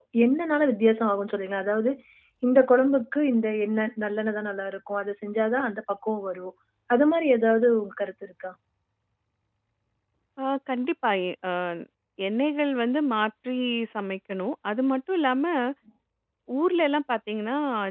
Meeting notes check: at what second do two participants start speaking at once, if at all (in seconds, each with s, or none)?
none